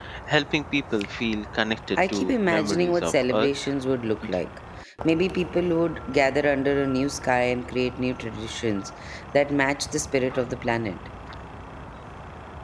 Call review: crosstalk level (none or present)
present